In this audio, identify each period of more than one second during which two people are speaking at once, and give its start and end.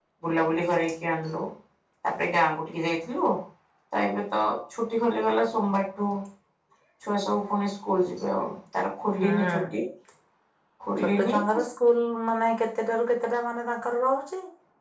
none

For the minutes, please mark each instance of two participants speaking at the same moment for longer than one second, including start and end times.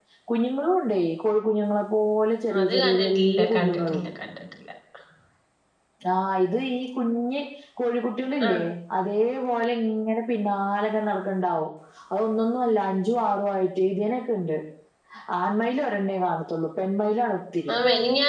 2.6-4.0

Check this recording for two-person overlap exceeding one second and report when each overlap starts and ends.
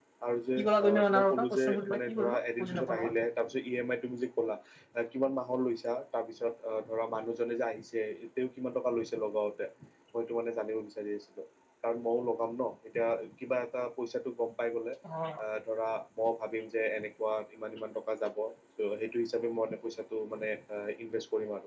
0.6-2.3

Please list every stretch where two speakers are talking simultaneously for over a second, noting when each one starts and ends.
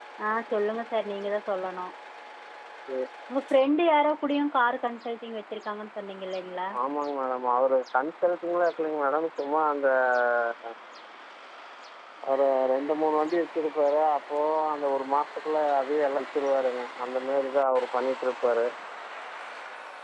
none

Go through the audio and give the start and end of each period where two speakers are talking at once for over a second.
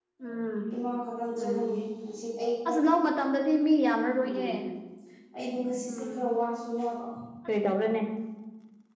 none

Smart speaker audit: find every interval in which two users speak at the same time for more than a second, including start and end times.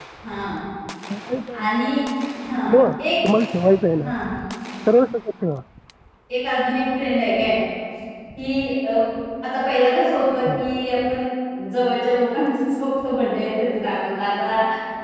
none

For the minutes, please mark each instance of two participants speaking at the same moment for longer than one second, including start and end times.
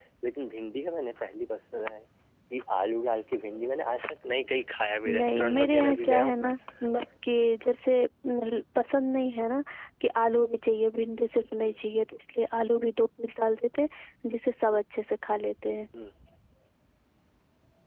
5.2-6.5

